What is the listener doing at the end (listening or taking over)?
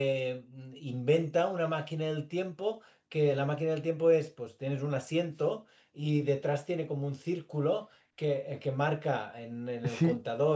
taking over